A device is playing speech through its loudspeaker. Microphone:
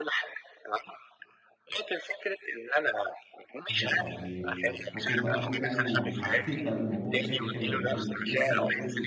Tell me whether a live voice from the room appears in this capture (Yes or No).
Yes